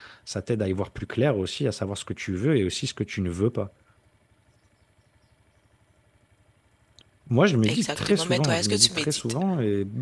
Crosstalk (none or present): present